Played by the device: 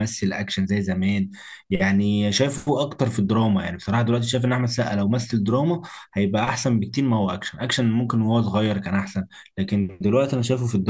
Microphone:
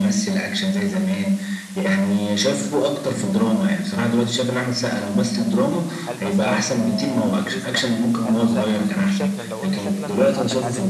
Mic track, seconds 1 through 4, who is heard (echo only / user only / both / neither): echo only